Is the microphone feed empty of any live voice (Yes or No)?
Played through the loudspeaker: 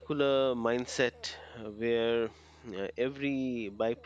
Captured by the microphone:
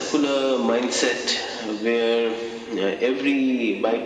Yes